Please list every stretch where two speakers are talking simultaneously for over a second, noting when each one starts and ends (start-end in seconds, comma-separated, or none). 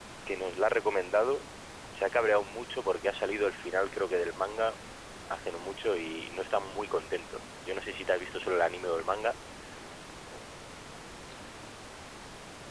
none